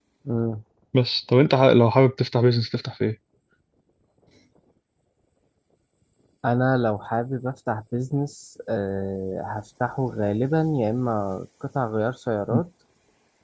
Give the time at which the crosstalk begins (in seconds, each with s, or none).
none